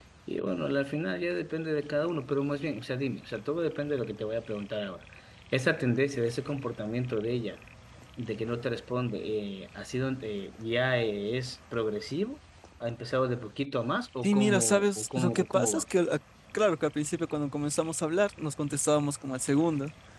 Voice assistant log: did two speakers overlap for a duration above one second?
Yes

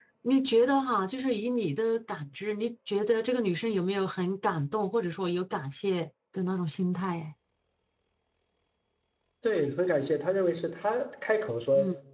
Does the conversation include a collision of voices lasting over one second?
No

